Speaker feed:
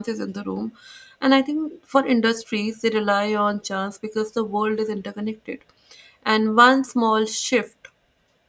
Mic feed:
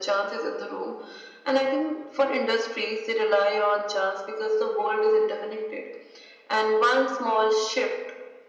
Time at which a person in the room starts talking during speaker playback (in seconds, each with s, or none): none